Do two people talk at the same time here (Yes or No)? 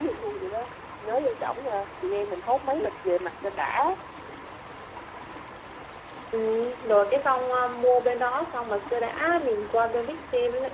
No